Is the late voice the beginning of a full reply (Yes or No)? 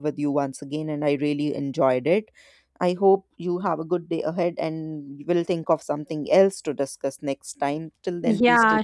Yes